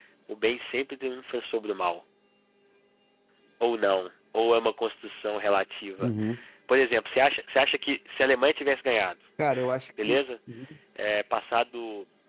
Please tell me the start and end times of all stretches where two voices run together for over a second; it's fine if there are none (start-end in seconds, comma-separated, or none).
none